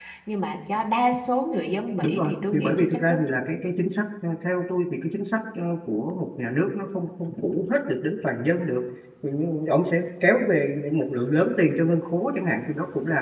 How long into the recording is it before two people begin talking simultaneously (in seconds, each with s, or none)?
2.0 s